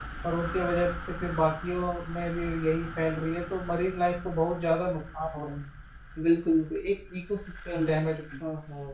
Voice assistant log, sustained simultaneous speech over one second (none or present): none